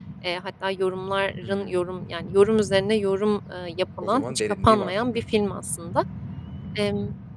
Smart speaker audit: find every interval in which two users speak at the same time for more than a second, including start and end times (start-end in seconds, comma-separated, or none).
4.0-5.2